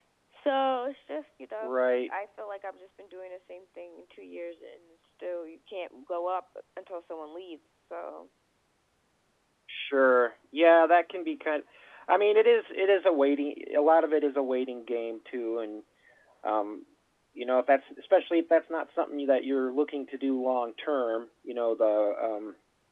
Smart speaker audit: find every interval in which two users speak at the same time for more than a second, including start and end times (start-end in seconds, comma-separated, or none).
none